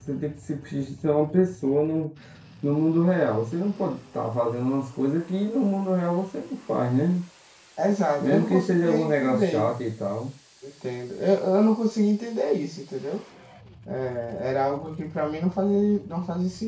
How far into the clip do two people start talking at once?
8.2 s

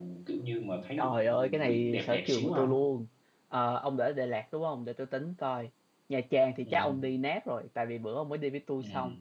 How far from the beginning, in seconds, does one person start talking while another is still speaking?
1.0 s

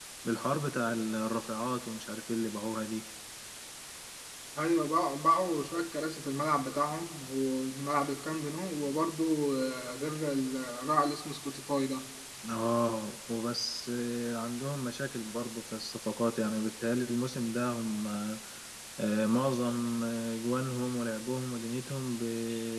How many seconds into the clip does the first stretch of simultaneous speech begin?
none

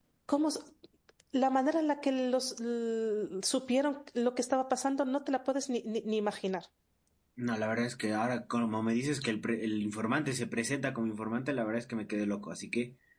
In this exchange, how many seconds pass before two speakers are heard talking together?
none

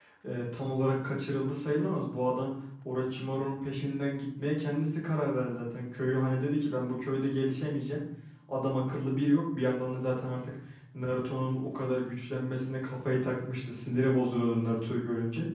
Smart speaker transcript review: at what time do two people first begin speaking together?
none

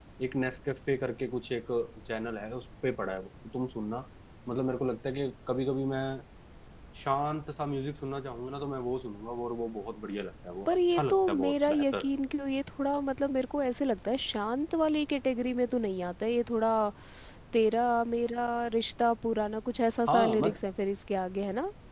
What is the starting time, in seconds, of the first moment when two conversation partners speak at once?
10.7 s

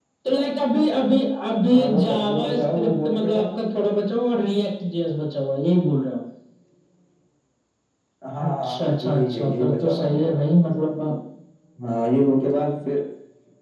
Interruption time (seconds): 1.7 s

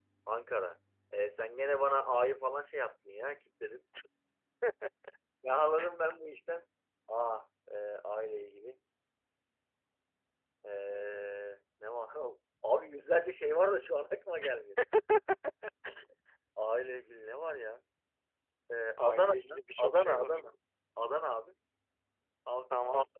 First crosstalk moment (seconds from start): 19.0 s

